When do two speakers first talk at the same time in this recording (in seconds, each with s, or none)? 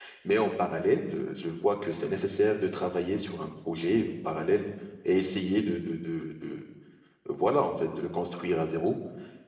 none